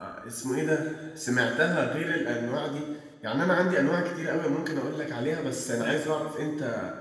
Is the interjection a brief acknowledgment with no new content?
Yes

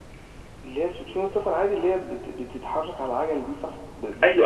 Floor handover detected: Yes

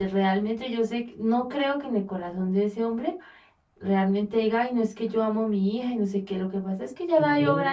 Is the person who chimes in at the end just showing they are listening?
Yes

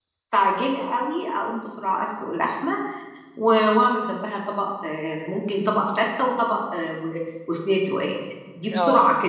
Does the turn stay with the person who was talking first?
Yes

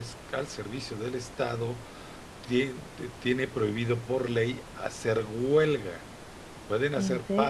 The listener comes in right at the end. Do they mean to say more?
No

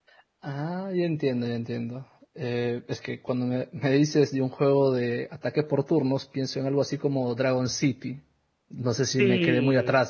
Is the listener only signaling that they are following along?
Yes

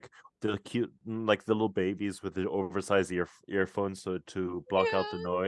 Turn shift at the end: Yes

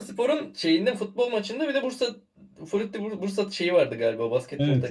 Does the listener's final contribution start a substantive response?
Yes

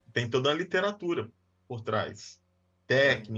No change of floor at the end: Yes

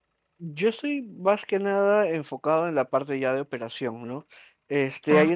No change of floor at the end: Yes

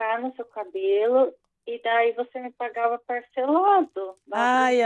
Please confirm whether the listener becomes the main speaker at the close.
Yes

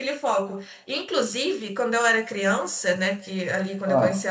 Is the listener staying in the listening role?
Yes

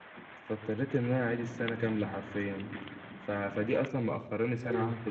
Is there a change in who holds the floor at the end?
No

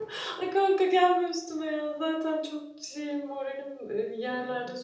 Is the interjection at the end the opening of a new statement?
Yes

